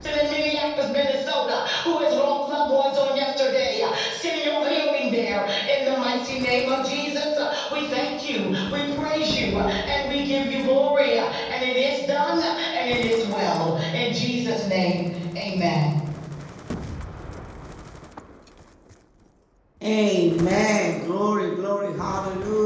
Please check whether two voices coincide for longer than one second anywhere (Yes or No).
No